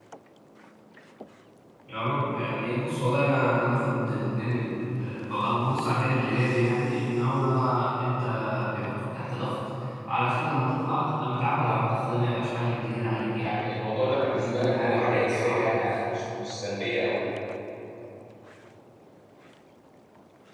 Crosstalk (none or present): present